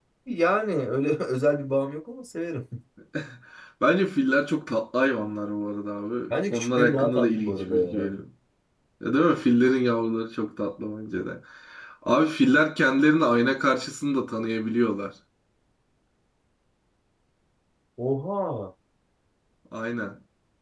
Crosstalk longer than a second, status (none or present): present